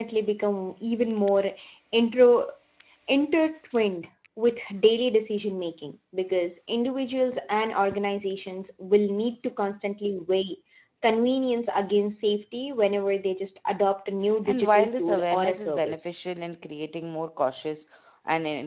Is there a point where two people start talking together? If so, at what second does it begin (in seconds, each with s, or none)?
14.4 s